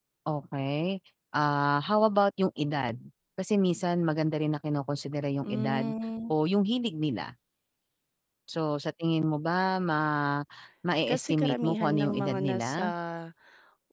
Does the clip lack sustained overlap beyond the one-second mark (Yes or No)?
No